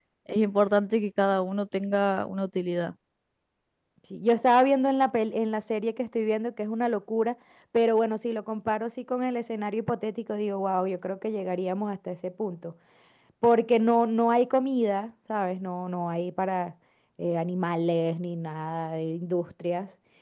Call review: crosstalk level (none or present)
none